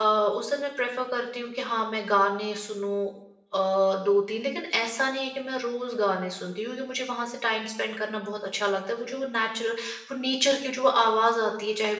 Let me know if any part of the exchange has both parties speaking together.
No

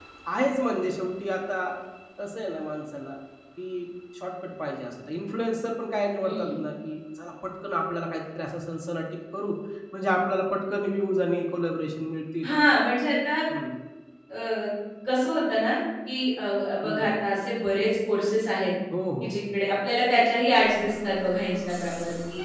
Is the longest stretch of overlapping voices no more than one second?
Yes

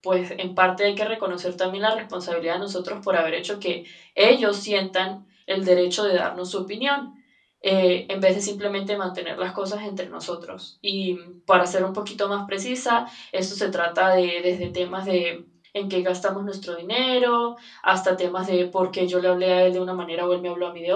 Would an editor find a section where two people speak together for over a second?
No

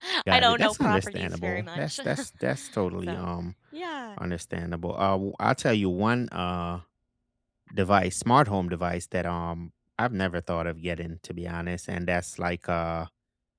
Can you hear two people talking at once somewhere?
Yes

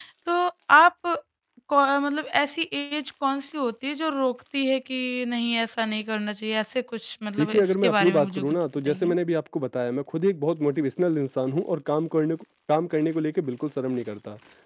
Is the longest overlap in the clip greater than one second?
Yes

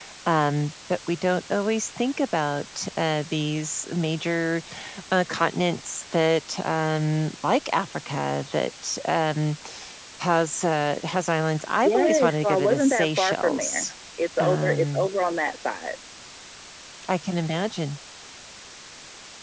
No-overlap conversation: No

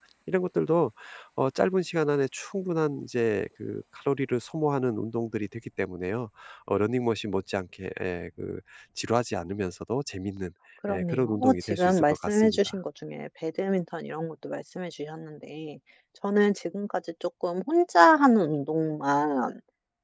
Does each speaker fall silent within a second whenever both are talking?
No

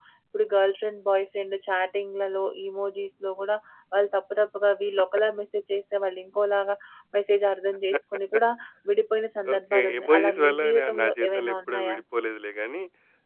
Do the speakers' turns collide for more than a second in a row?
Yes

